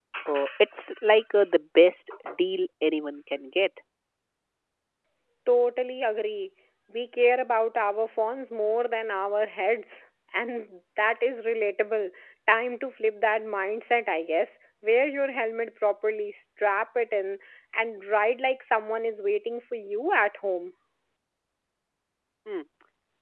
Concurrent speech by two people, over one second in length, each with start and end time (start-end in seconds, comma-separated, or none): none